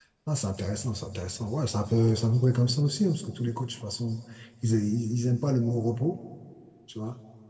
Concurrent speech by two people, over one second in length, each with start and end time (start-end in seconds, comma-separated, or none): none